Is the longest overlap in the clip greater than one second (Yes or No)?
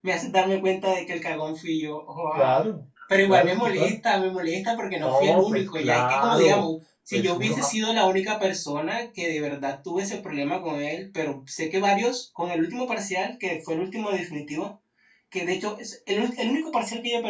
Yes